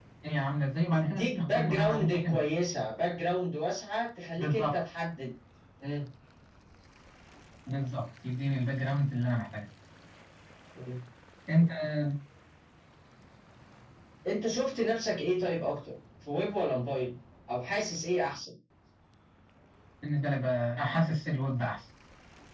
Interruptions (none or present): present